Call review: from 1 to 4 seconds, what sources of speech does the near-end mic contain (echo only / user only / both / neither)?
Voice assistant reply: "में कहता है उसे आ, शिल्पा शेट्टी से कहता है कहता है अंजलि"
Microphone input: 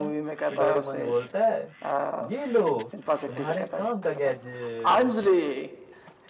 both